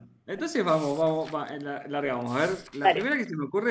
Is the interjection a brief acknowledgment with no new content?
Yes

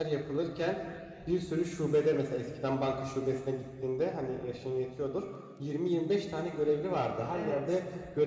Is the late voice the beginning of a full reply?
No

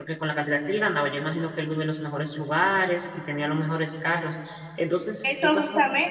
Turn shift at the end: Yes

